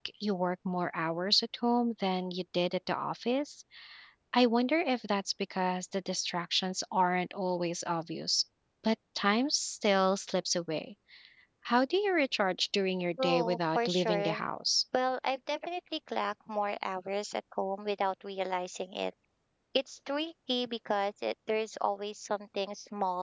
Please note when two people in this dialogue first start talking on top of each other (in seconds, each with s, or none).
13.2 s